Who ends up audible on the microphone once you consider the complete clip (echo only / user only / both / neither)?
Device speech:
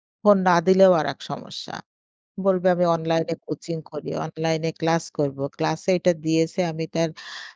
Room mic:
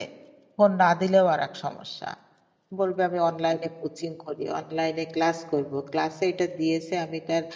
echo only